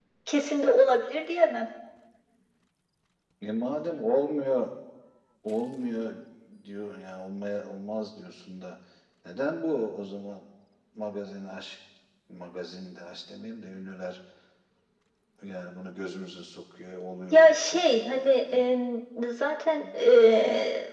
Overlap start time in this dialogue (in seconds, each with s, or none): 17.3 s